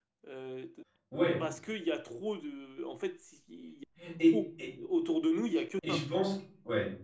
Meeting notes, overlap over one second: none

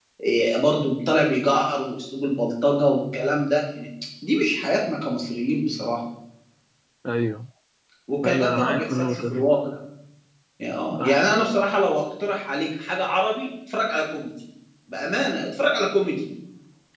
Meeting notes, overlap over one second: present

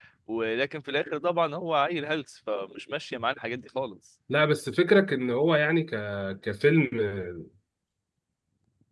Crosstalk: none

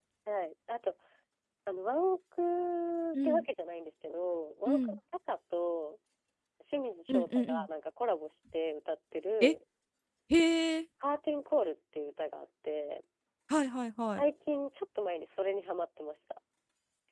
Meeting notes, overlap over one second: none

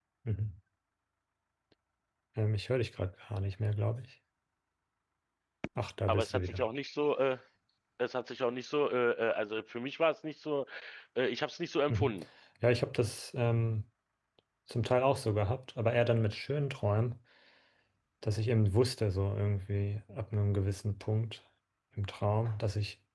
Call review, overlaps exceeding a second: none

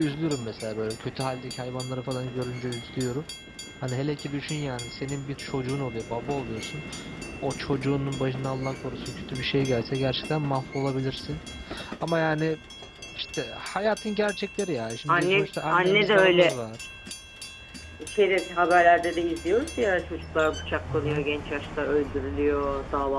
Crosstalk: present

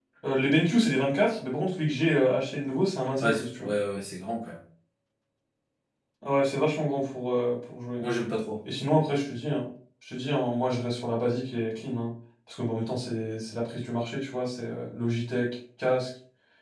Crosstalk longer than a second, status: none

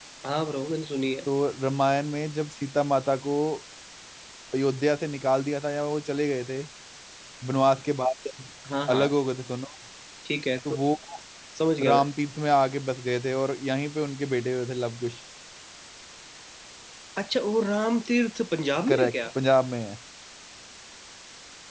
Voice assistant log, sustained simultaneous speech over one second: none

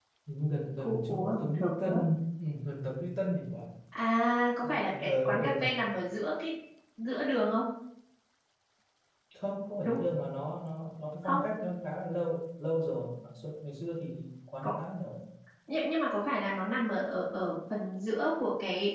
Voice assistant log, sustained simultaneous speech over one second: present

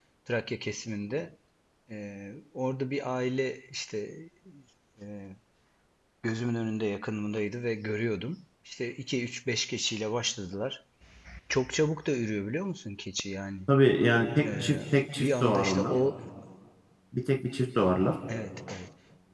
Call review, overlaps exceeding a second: present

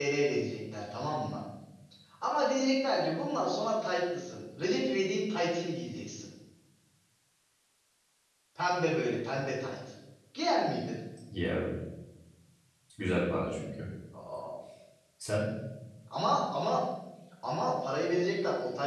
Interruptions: none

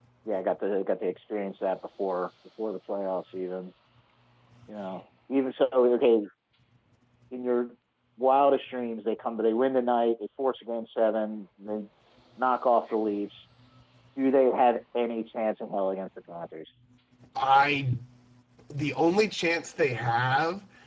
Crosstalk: none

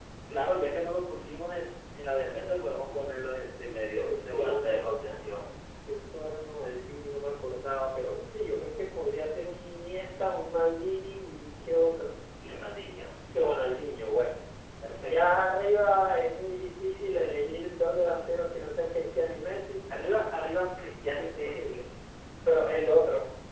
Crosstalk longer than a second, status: present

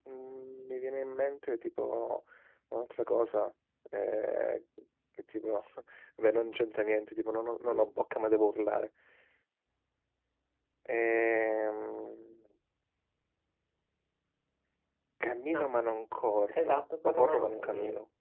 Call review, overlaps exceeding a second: present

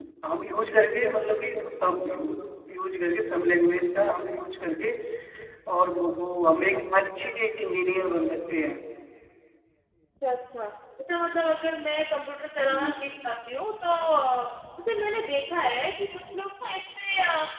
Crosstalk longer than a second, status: none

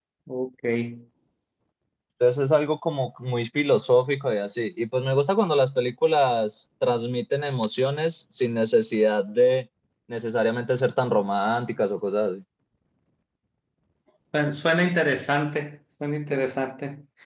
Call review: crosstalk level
none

